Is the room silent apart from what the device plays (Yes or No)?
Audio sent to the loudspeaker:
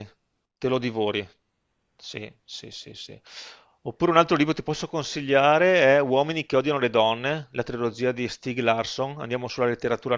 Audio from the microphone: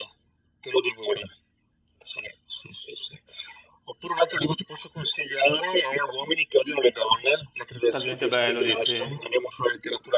No